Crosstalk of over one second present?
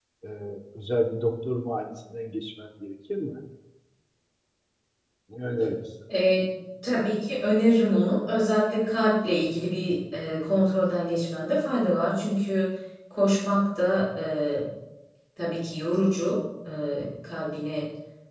No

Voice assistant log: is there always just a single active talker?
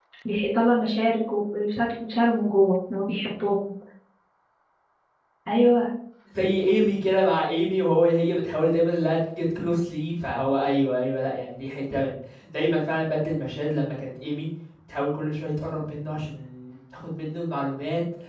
Yes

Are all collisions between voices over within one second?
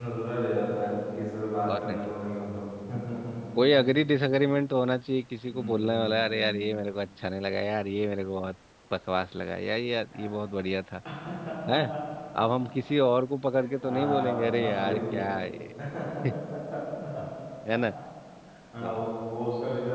No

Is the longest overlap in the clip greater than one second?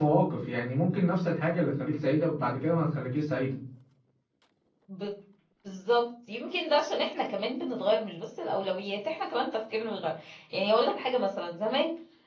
No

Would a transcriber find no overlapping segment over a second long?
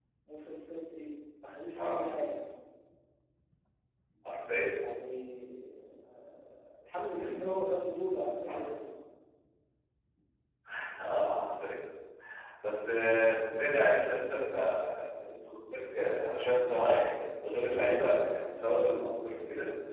Yes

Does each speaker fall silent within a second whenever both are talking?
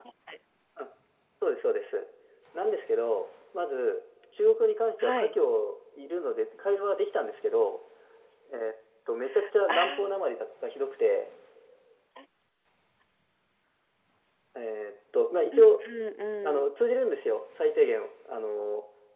Yes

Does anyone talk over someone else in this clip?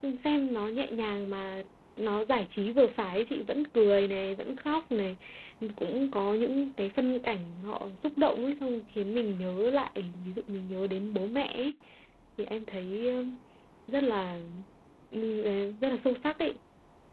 No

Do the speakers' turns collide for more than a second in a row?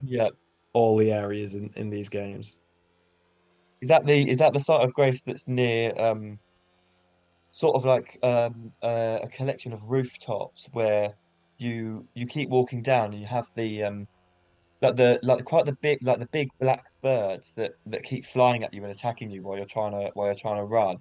No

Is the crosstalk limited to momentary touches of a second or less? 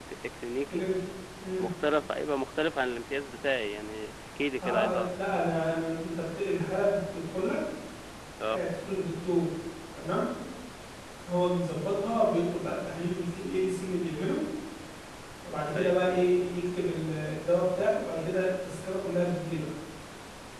Yes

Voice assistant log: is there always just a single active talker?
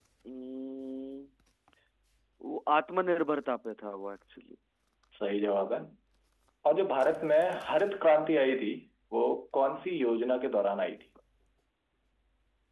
Yes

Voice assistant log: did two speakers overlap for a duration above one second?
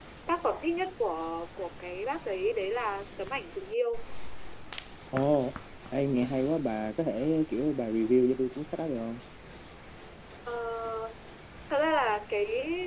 No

